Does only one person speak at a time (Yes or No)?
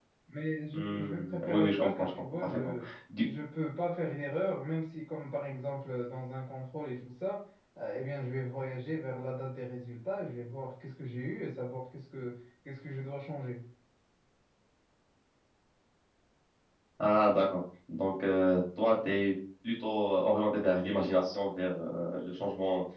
No